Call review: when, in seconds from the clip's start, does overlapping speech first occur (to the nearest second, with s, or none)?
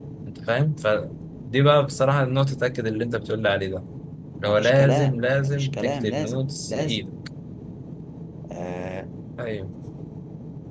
4 s